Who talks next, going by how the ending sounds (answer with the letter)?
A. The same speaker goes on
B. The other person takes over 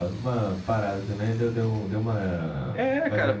B